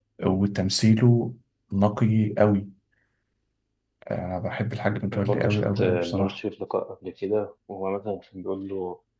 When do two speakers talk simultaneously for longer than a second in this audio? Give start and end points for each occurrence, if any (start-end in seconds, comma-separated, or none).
5.1-6.4